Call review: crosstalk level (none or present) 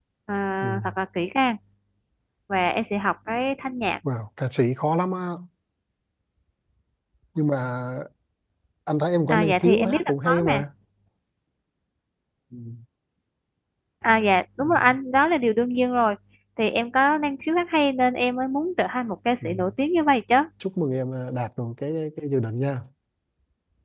present